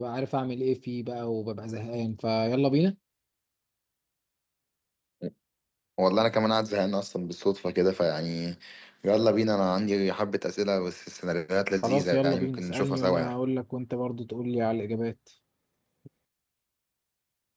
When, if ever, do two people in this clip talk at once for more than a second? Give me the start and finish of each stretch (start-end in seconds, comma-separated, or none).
11.8-13.3